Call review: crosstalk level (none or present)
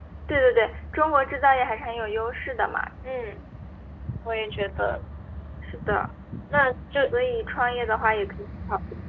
none